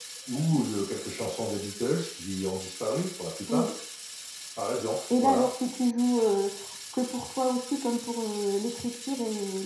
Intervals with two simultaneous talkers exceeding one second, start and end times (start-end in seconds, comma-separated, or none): none